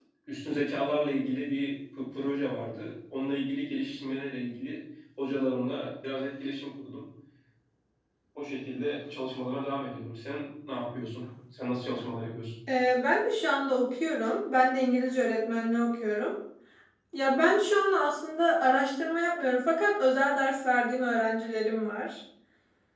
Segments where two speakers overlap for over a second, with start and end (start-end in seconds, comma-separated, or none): none